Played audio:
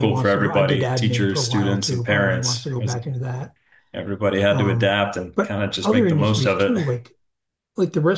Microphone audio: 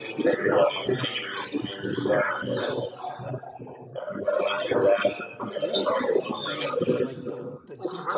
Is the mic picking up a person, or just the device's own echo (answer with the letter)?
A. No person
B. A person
B